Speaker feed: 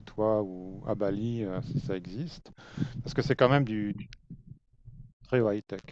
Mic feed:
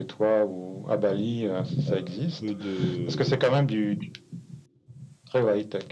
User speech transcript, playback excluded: euh, pour peu de...

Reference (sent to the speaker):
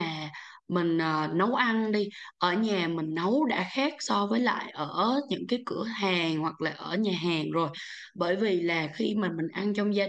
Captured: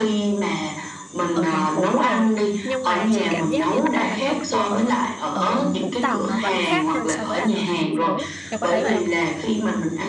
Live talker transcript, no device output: ở thành phố rồi nhưng mà chị cảm giác như ăn bánh canh cua ở ở Vũng Tàu nó vẫn khác hơn so với ăn ở thành phố em có thấy vậy không

